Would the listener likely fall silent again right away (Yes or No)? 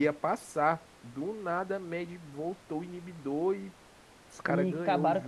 No